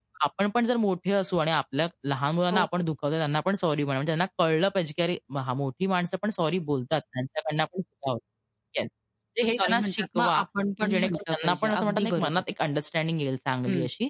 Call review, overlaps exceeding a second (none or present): present